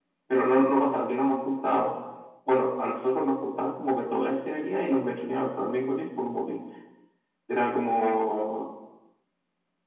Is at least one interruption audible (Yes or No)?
No